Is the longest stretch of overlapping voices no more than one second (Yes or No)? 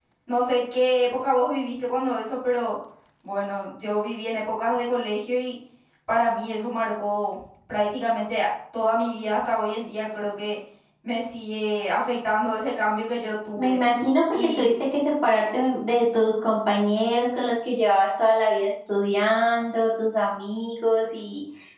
Yes